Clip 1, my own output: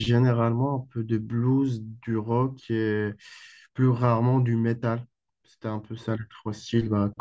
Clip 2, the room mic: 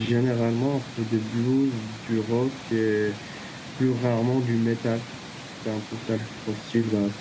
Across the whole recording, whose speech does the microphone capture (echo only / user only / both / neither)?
echo only